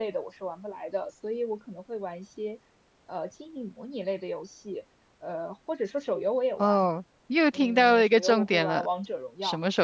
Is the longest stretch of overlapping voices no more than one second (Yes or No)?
No